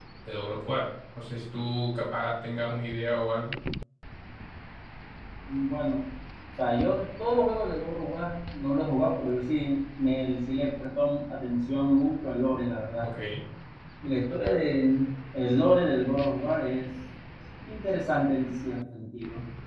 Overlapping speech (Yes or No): No